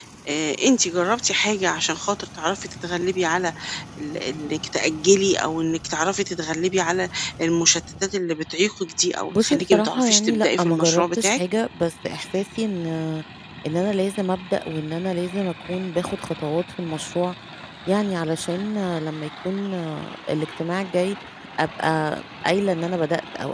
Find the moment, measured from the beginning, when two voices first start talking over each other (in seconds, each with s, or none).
9.3 s